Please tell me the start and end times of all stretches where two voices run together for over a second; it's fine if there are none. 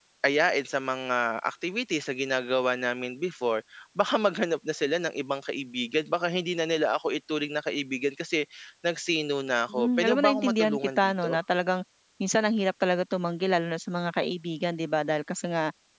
9.7-11.4

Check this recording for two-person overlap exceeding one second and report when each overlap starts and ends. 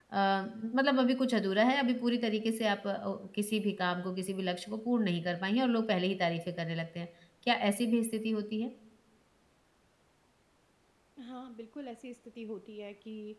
none

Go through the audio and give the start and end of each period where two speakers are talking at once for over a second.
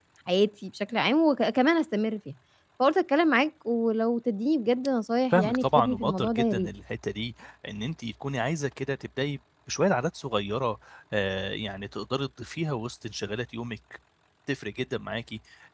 5.3-6.7

